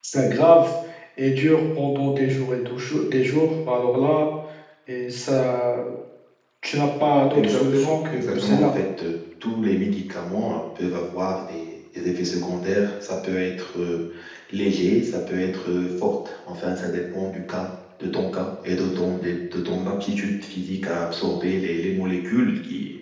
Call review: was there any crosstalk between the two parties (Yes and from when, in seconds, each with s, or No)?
Yes, from 7.3 s